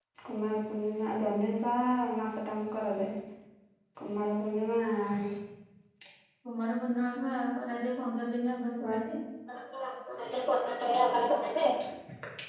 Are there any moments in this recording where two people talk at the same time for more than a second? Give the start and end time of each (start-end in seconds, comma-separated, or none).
none